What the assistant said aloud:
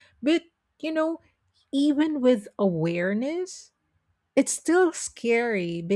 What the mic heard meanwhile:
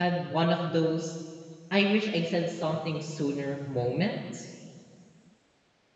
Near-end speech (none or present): present